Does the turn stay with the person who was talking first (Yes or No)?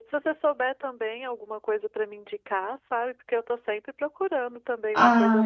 No